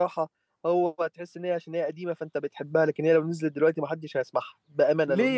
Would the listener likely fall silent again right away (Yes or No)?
No